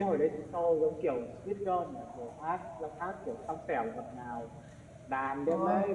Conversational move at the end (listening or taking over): listening